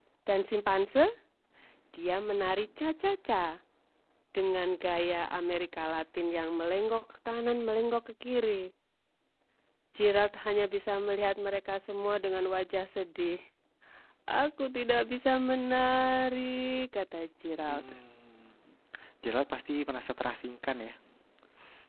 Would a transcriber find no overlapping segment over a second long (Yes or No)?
Yes